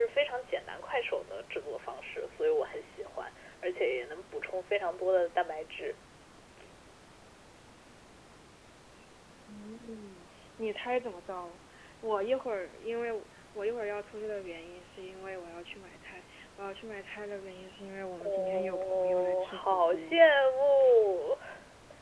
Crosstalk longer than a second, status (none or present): present